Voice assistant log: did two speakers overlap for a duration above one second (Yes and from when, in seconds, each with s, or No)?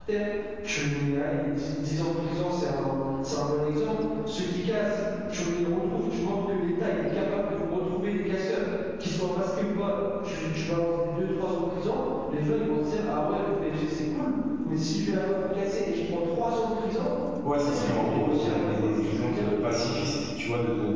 Yes, from 17.6 s